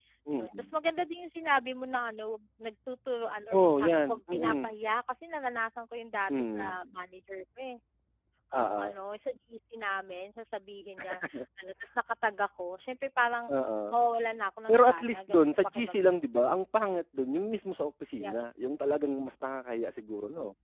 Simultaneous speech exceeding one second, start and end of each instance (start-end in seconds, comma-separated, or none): 3.5-4.8, 14.7-16.6